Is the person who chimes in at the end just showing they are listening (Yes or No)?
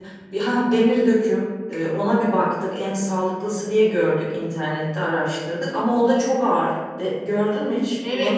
No